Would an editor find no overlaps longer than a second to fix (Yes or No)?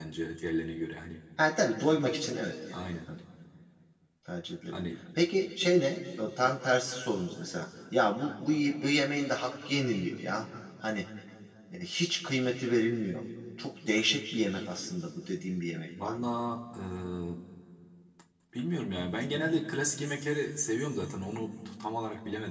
Yes